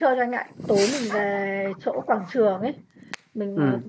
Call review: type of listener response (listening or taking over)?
listening